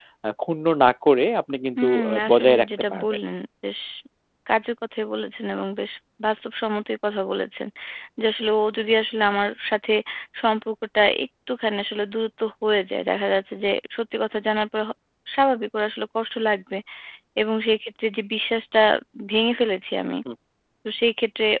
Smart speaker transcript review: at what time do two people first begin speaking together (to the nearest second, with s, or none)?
2 s